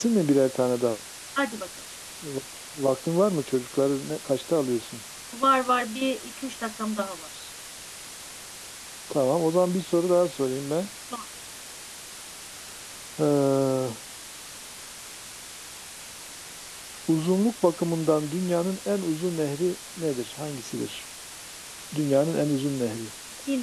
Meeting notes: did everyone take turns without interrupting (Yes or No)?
Yes